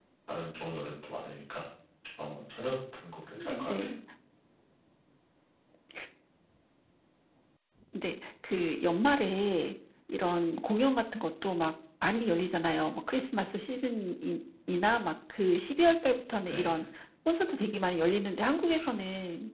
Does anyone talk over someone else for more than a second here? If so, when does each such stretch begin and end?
none

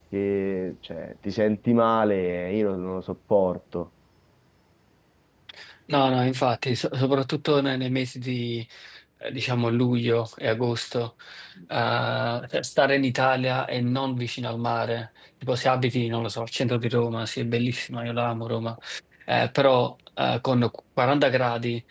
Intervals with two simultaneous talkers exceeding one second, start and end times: none

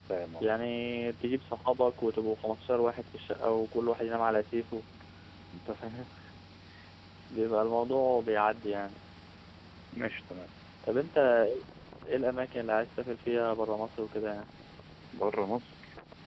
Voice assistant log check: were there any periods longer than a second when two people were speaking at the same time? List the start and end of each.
none

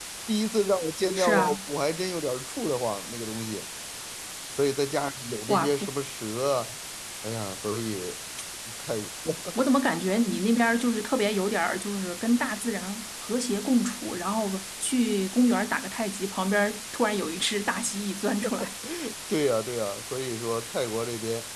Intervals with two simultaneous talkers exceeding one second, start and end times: none

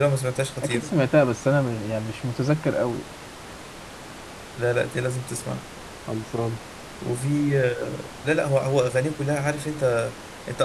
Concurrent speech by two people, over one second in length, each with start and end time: none

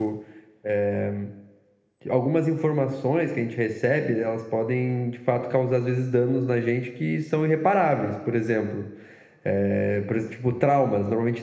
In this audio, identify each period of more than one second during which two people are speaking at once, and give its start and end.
none

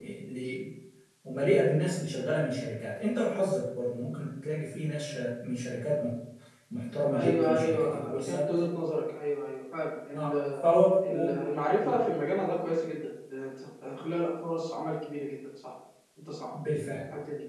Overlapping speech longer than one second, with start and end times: 7.1-8.5

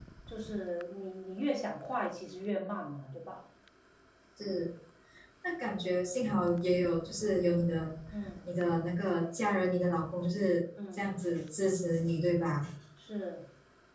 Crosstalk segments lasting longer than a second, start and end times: none

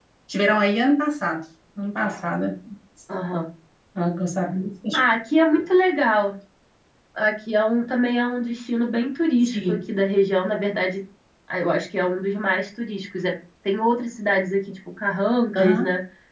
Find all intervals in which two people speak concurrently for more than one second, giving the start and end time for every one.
none

